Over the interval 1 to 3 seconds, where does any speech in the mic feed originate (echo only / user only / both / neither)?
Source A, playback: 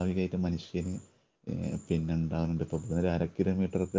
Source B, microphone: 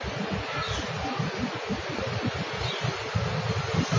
neither